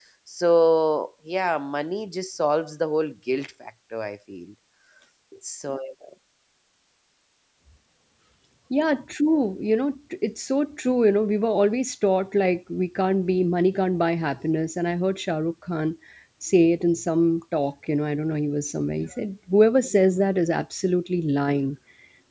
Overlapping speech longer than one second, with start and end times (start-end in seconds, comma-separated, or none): none